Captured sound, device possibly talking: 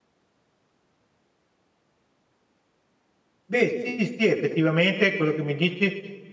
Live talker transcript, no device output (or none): Beh, sì, sì, effettivamente quello che mi dici è